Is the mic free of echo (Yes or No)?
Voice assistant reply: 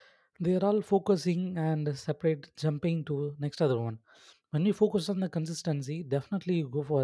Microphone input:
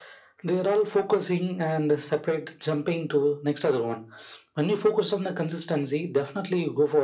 No